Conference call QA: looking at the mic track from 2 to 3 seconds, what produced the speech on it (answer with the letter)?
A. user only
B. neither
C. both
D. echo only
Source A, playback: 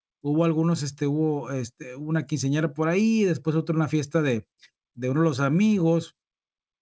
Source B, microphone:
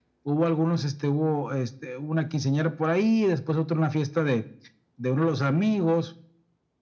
D